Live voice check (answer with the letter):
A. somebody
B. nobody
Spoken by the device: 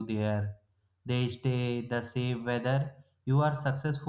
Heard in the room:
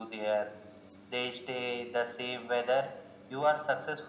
B